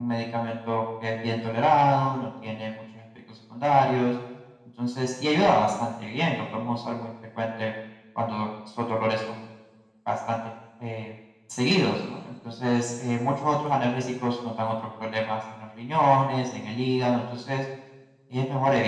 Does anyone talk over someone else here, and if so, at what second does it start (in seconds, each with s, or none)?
none